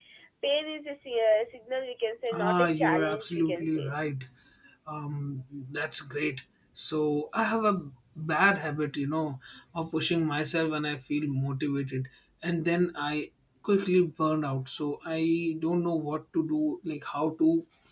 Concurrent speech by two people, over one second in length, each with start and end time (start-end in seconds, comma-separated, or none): 2.3-3.9